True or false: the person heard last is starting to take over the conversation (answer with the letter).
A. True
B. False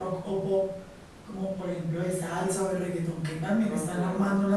A